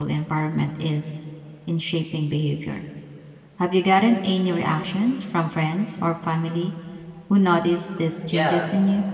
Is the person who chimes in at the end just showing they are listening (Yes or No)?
No